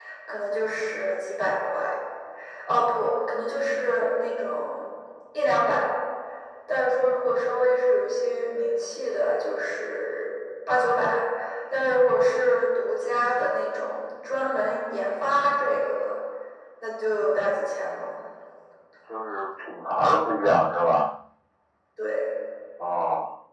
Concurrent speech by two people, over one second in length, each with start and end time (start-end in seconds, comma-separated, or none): none